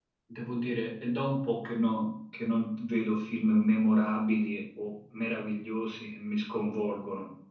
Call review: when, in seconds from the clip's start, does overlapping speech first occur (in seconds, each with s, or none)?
none